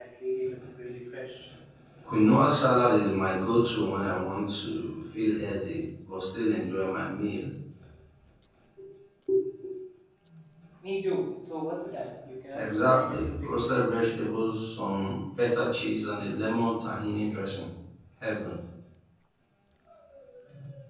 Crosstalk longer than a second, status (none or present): present